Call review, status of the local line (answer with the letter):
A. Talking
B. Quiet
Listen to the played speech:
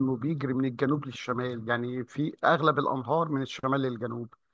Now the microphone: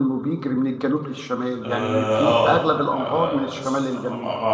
A